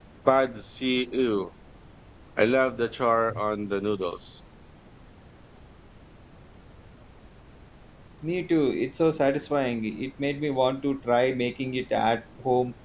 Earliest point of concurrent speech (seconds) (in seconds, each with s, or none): none